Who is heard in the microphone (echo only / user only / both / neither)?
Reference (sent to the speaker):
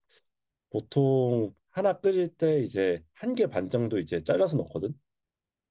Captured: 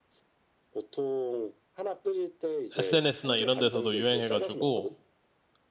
both